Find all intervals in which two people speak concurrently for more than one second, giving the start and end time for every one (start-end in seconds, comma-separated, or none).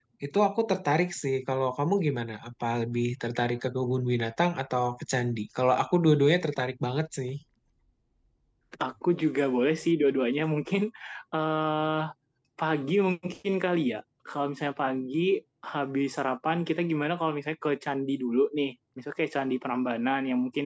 none